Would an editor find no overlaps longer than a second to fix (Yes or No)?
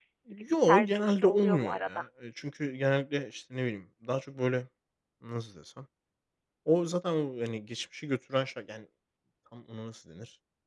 No